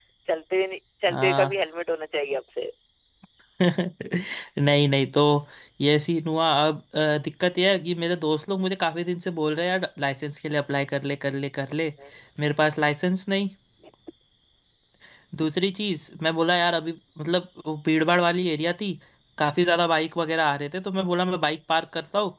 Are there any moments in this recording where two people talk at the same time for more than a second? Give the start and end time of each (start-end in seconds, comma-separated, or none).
none